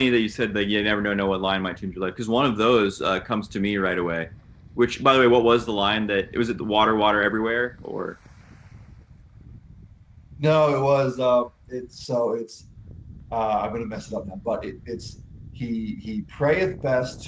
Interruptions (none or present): none